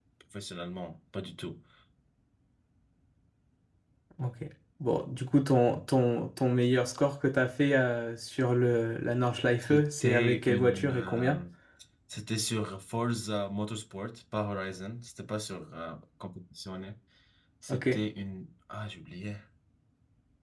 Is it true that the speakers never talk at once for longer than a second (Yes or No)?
No